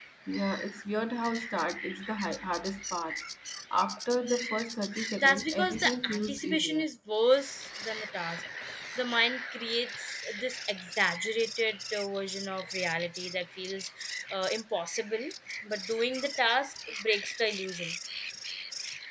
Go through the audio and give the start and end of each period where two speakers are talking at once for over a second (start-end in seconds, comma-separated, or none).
5.2-6.8